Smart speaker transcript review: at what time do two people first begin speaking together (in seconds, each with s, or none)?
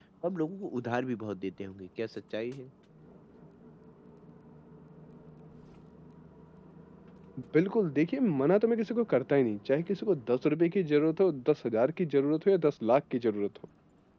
none